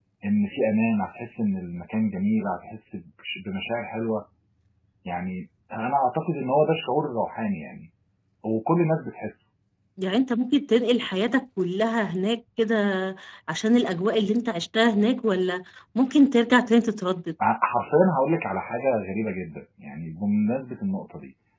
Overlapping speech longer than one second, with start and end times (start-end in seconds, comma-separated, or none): none